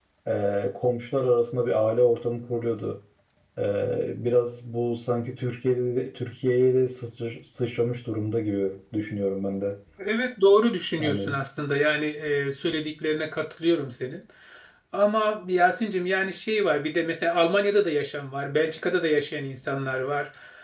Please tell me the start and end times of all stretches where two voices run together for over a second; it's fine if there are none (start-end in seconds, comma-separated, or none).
none